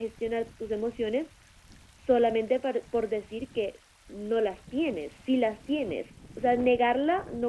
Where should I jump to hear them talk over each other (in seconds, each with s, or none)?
none